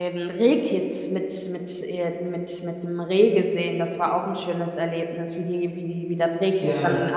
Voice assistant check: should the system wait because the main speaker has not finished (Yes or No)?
Yes